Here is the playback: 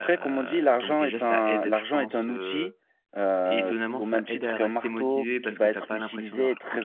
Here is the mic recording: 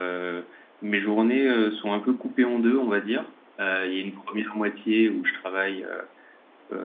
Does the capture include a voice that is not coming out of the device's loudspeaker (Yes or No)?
Yes